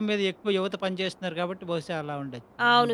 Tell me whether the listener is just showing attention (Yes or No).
No